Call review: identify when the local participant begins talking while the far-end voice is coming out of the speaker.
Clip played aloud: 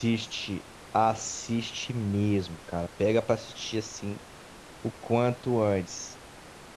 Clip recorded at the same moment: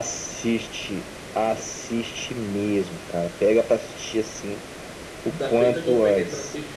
5.3 s

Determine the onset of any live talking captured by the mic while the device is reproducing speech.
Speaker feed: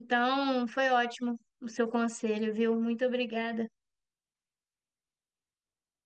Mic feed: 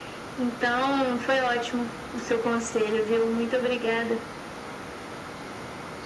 none

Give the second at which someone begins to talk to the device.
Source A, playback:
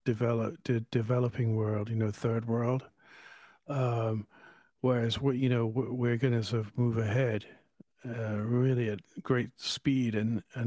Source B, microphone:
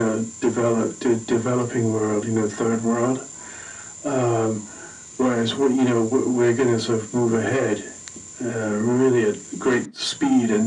none

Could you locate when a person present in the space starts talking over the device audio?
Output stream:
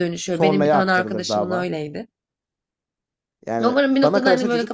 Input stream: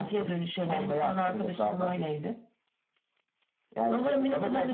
3.8 s

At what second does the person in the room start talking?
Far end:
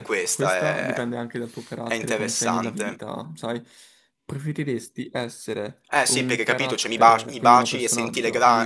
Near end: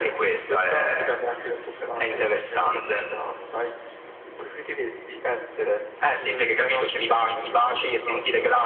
none

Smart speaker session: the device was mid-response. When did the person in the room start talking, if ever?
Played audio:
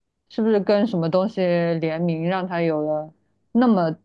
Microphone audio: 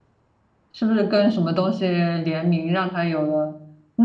none

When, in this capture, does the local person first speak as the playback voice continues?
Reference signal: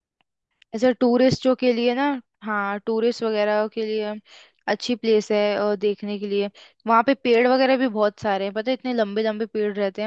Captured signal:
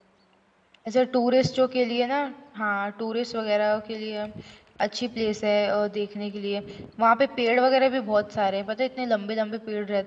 none

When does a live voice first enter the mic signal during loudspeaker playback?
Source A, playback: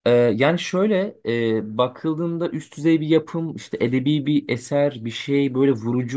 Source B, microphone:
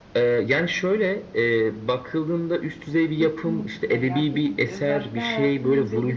3.1 s

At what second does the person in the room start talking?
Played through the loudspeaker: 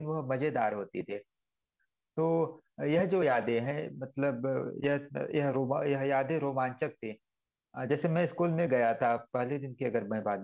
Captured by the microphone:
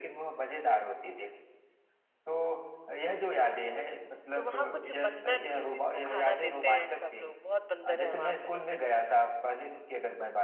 4.3 s

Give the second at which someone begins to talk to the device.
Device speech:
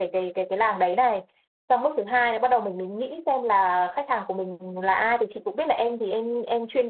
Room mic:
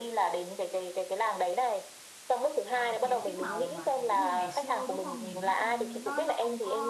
2.7 s

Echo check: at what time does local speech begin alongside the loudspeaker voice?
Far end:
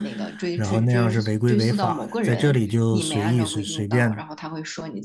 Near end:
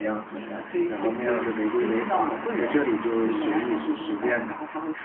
none

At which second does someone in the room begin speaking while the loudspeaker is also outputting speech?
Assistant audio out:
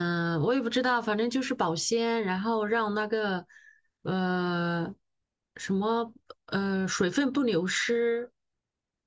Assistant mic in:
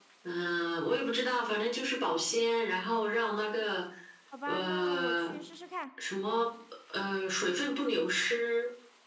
4.3 s

